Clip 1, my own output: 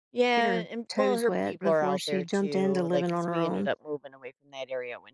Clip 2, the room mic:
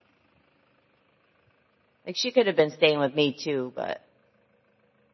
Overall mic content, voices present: user only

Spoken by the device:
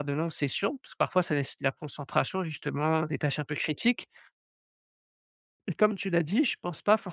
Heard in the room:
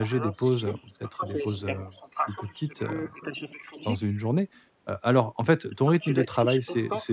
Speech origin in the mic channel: both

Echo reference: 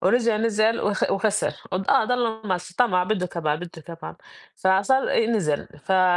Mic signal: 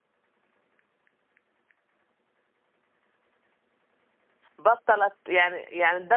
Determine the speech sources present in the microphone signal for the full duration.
user only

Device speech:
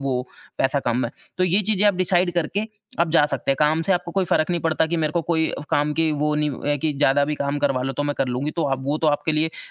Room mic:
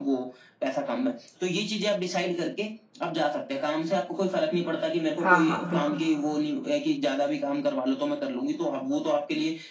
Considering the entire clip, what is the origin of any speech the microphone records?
both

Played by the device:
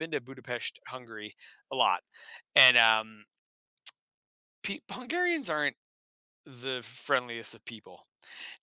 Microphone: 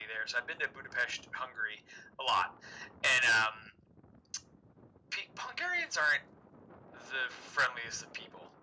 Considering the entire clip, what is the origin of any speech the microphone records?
echo only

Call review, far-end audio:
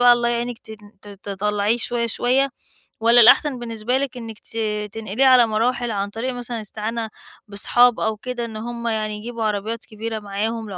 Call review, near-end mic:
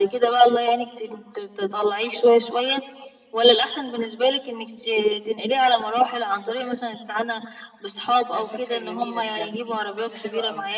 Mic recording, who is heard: both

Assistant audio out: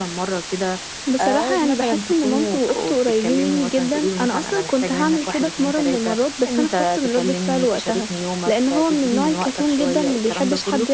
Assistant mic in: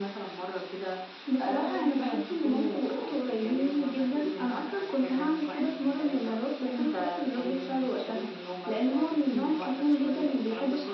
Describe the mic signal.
echo only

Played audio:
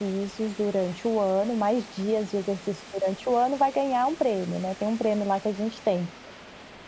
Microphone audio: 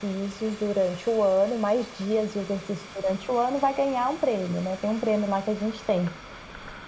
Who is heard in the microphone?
echo only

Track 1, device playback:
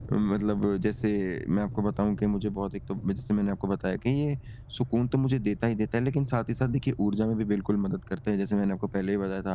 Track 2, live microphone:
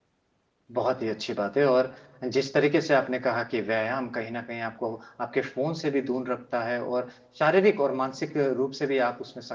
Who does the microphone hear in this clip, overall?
user only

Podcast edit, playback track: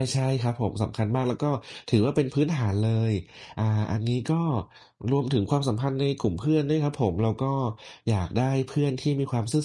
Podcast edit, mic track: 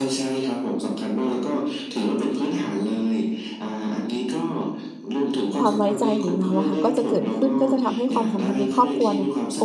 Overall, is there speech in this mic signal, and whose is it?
both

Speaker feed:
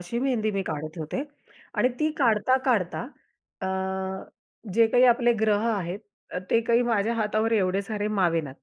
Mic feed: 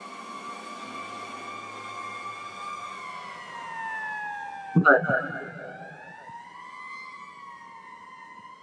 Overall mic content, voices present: user only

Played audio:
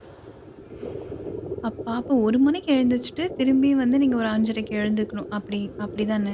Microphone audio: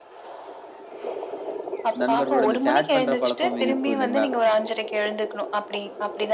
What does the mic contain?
both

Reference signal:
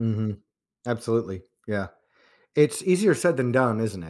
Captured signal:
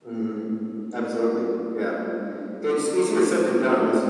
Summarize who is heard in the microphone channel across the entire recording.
echo only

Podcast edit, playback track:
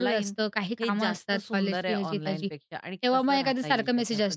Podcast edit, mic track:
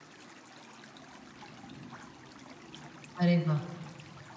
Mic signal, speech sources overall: user only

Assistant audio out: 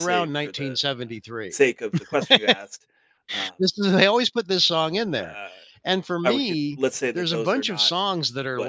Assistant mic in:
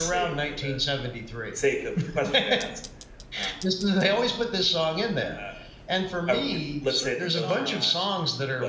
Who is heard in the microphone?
both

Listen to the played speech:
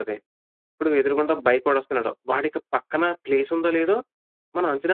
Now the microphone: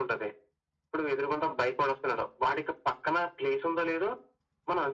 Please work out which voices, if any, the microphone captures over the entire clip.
echo only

